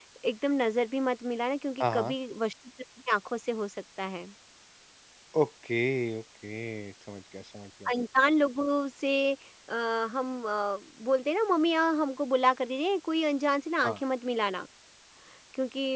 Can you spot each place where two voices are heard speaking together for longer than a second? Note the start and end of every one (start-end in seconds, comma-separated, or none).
none